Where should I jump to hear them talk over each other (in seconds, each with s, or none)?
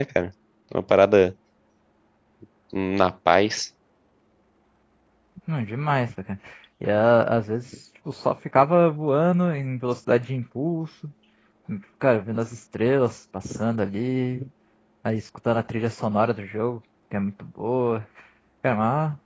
none